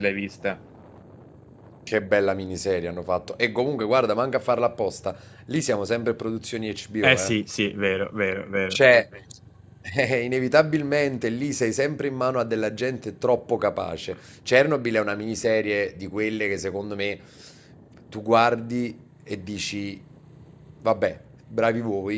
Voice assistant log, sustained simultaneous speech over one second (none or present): none